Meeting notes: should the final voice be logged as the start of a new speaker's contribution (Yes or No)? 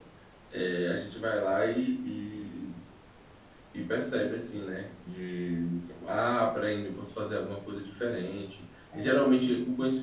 No